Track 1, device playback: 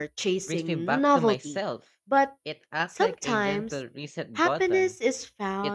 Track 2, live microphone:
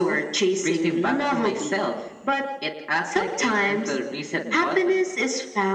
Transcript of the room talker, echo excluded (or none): none